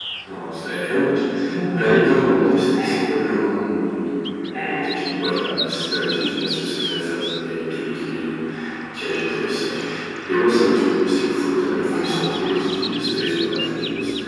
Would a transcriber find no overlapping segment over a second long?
Yes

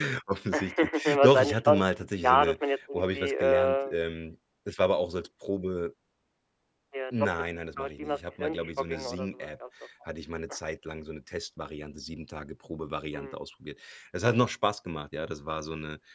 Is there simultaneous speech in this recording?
Yes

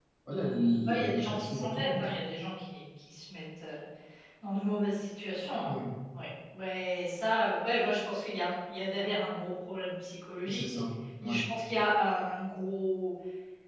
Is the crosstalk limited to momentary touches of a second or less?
No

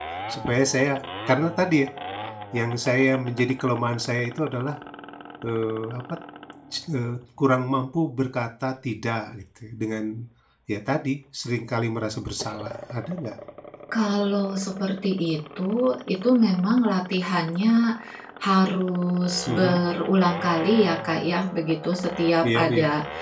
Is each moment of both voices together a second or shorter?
Yes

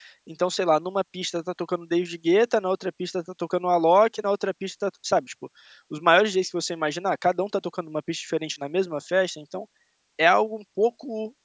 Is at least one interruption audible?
No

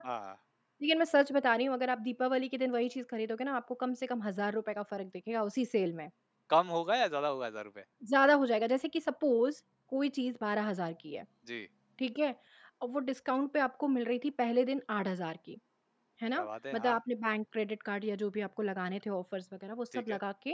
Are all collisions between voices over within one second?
Yes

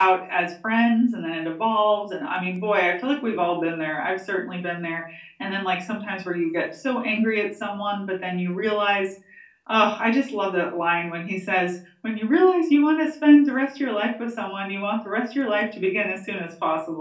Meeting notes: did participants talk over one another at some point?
No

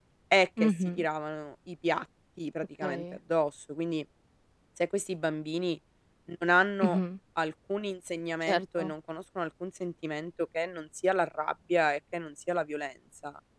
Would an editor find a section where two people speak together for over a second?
No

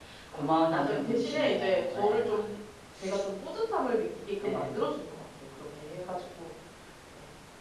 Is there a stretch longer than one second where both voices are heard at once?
Yes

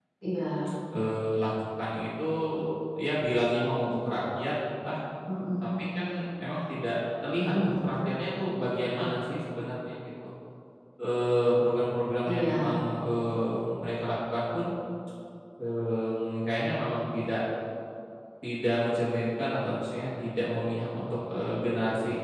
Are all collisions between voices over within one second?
Yes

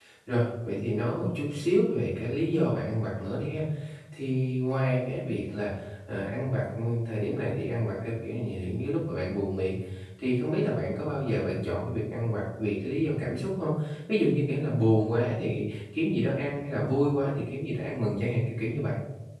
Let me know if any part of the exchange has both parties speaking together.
No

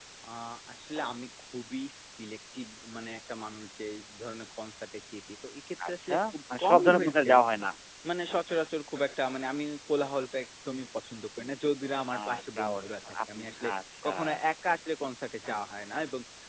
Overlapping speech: Yes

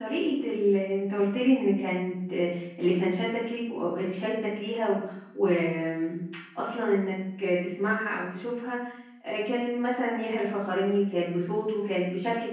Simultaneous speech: No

